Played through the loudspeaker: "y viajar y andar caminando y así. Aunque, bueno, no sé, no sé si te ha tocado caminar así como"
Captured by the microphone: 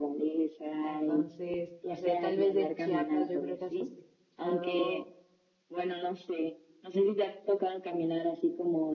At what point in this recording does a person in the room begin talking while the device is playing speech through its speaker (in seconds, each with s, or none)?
0.8 s